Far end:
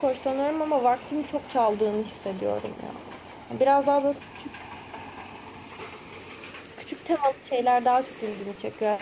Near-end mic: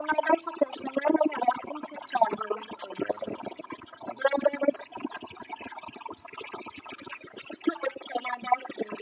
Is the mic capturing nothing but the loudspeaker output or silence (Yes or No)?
Yes